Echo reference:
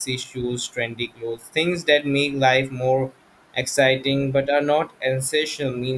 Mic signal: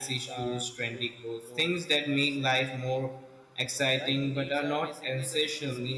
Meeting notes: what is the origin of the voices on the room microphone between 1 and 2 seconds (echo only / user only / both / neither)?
both